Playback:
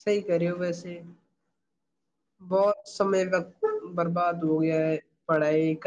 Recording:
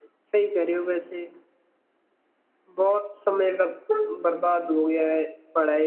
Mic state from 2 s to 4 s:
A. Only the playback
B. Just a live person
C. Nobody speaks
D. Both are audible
A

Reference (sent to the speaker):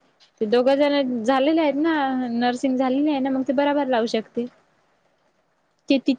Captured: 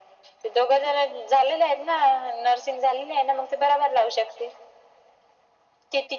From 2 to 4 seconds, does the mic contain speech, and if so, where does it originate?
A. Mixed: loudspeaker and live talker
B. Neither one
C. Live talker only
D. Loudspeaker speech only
D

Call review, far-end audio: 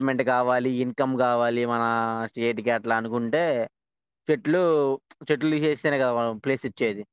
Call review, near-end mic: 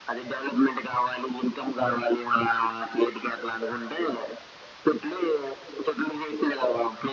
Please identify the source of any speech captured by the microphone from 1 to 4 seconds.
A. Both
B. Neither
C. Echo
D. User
C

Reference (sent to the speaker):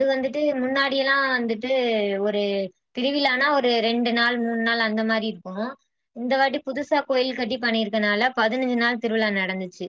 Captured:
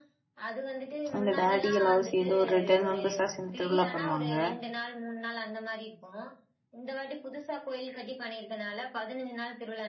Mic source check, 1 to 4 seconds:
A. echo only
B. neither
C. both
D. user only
C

